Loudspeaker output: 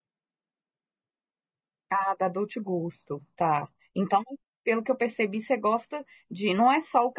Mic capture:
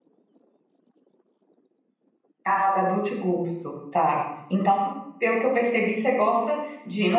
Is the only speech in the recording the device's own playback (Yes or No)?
Yes